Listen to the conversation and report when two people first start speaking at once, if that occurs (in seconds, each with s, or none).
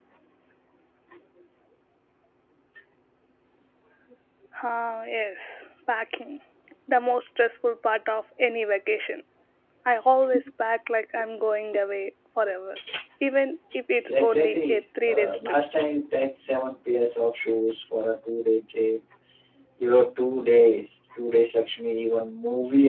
13.9 s